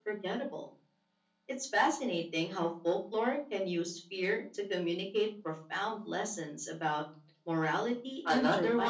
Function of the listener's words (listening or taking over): taking over